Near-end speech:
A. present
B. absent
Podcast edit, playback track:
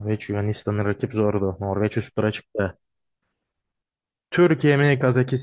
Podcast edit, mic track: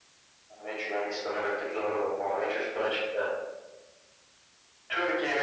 B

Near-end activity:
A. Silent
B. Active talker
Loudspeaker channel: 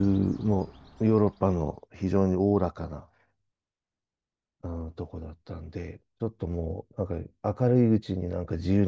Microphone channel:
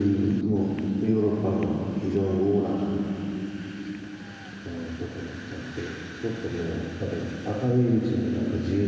A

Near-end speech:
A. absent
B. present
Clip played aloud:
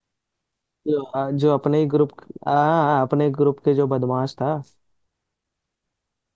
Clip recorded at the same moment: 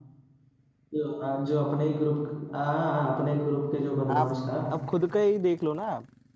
B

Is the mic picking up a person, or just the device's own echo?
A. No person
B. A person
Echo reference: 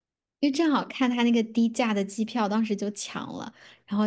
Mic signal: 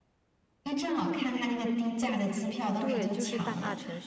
B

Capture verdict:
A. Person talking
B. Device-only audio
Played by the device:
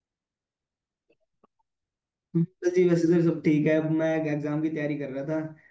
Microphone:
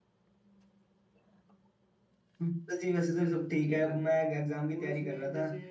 A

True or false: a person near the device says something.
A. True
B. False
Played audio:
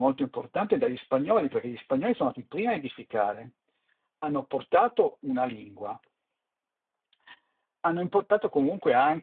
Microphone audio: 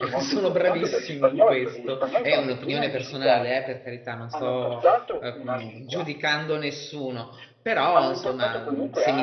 A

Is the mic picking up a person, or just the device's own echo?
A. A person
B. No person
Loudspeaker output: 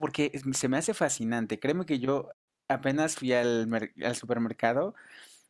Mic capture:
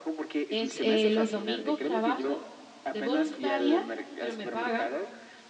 A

